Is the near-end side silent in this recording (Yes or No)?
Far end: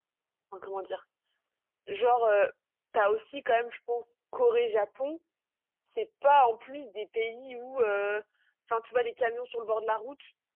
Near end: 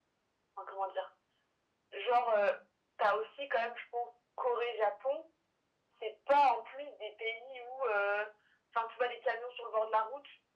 Yes